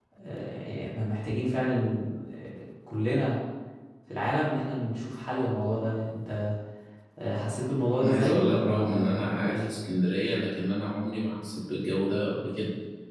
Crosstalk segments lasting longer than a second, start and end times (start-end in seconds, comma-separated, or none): 8.0-9.7